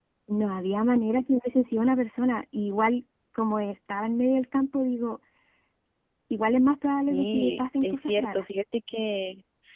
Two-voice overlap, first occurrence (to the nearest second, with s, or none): 7 s